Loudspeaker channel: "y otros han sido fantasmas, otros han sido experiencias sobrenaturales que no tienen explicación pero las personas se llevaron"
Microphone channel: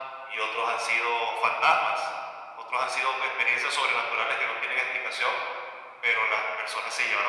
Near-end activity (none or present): none